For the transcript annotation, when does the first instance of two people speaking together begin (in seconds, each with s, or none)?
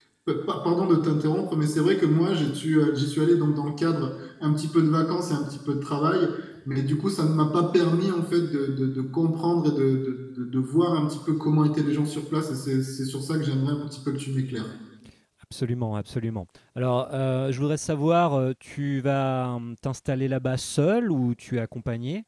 none